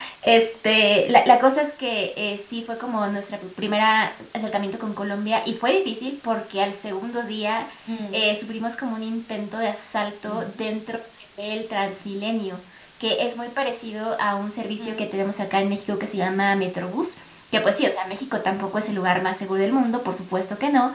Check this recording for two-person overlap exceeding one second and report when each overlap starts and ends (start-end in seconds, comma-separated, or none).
none